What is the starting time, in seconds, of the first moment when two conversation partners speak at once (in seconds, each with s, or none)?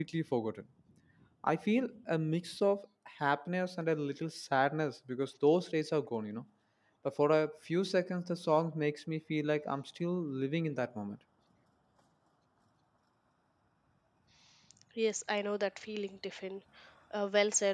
none